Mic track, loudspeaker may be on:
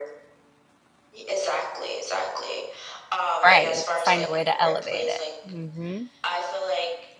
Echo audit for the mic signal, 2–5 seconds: both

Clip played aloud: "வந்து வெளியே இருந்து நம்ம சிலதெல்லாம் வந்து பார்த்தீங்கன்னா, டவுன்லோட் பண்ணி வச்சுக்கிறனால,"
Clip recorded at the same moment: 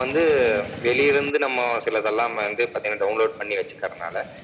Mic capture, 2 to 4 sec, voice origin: echo only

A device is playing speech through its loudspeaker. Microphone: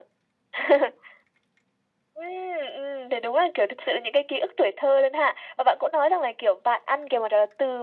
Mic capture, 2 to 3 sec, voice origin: echo only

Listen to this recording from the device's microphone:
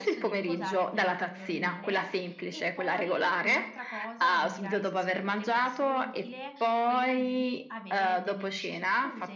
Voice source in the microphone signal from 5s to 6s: both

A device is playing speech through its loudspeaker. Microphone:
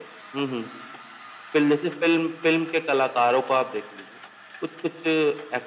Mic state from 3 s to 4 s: echo only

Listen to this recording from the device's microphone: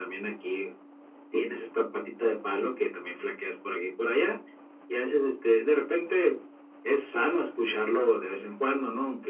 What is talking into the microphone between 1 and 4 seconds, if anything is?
echo only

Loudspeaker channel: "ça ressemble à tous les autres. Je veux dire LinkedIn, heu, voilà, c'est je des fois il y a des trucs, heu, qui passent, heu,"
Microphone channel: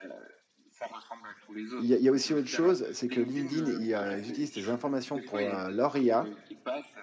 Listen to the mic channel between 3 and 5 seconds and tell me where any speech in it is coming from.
both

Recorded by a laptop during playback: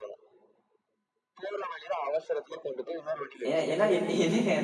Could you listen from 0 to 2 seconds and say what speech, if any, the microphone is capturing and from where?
echo only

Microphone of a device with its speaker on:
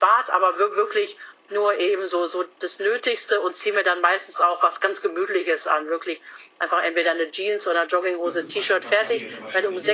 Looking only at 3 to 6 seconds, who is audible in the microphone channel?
echo only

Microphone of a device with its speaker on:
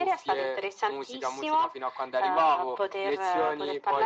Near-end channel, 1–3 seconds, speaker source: echo only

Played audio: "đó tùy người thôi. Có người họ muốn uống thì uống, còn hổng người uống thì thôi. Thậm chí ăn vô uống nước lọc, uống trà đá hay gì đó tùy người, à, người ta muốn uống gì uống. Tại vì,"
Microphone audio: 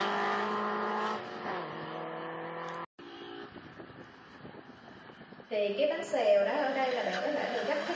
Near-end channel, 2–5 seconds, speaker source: neither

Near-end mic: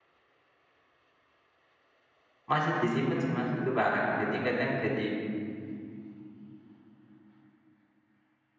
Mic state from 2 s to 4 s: user only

